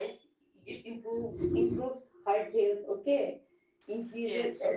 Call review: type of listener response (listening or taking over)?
listening